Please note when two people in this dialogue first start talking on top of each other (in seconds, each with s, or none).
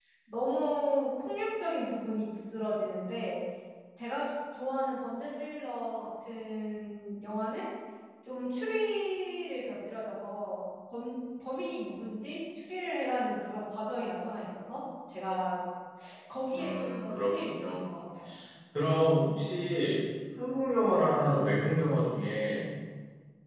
16.6 s